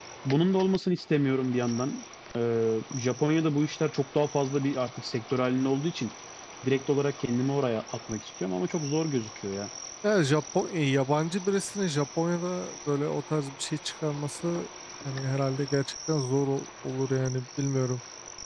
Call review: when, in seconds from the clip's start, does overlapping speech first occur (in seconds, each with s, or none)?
none